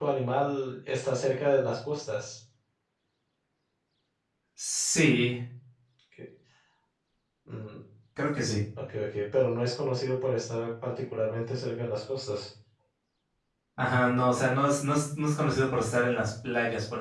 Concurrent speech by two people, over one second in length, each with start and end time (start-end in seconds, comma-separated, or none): none